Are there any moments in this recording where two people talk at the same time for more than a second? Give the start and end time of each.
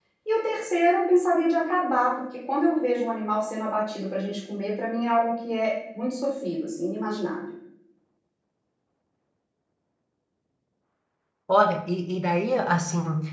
none

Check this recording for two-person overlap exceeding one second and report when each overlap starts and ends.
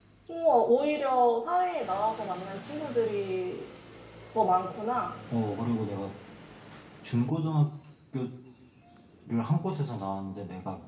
none

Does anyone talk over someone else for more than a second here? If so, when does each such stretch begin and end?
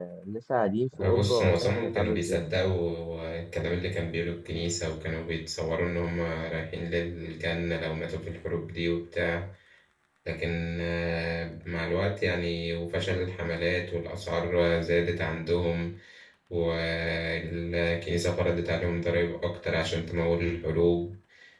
1.0-2.4

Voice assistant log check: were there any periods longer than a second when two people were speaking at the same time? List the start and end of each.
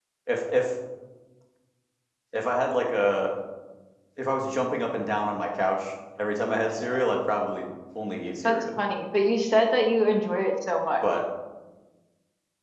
none

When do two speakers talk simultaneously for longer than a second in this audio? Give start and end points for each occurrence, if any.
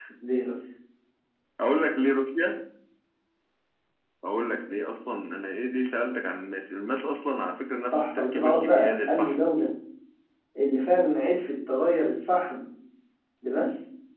7.8-9.3

